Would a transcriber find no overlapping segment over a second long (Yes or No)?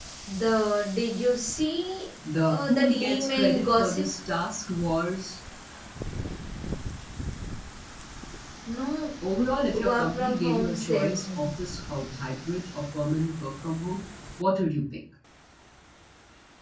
No